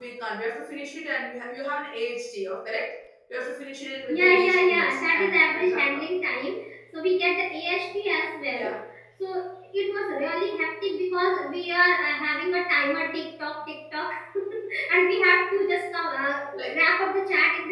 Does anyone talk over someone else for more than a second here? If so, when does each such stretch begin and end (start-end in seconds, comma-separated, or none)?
4.1-6.0